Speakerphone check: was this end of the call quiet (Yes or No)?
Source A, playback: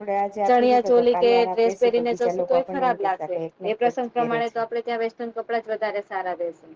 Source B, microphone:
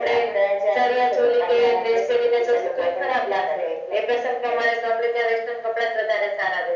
Yes